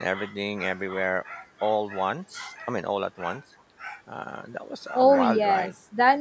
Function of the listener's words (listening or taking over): taking over